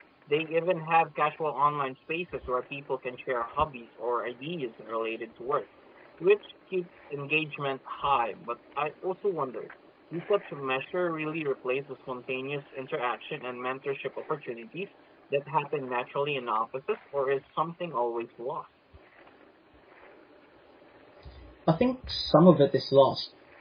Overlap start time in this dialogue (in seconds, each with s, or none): none